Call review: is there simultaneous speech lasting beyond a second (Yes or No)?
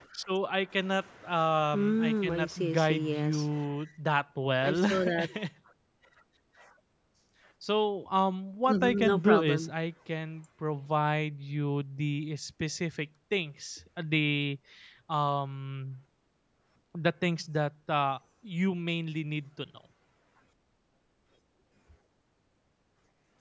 Yes